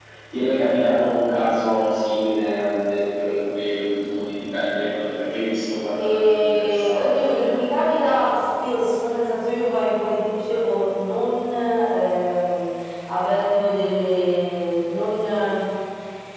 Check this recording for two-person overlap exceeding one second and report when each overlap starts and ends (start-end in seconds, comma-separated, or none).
6.0-7.6